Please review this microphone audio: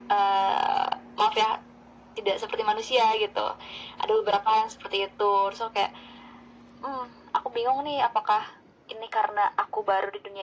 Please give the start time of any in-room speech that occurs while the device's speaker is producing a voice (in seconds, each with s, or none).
none